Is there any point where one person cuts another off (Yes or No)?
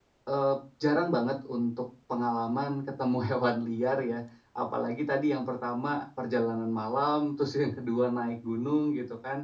No